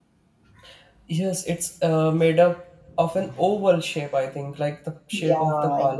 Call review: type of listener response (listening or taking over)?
taking over